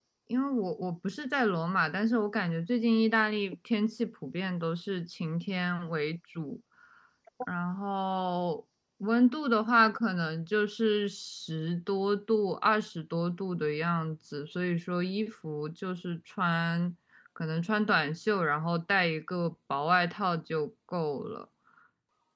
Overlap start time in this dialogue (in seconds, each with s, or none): none